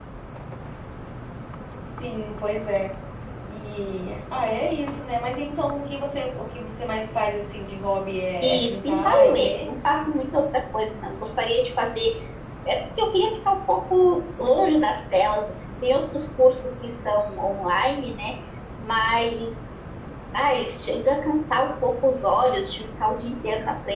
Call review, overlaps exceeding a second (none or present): present